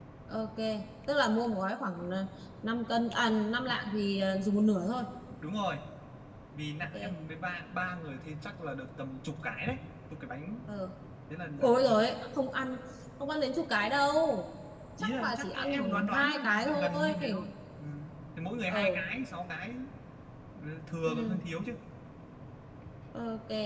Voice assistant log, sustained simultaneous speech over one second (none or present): present